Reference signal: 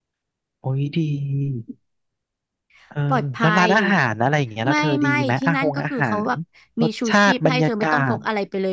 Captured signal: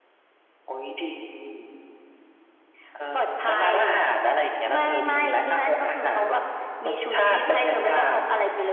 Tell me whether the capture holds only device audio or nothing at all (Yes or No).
Yes